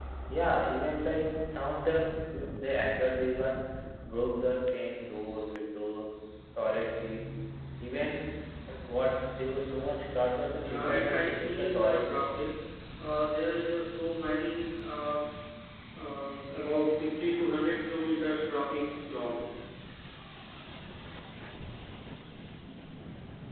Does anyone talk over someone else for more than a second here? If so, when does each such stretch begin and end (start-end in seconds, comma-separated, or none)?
10.6-12.2